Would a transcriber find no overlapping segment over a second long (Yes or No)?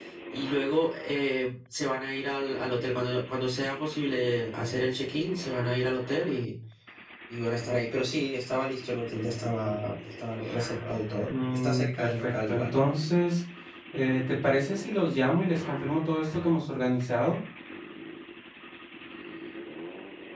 No